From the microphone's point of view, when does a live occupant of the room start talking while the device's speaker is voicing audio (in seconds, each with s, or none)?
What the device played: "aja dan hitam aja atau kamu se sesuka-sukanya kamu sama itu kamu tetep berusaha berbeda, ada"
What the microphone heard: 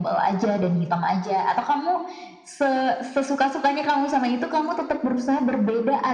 none